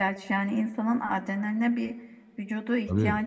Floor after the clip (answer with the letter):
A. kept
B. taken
A